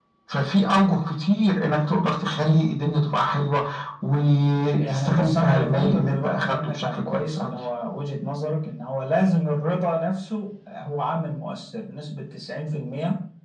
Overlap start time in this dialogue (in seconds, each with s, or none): 4.7 s